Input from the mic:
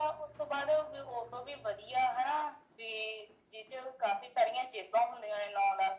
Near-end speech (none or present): none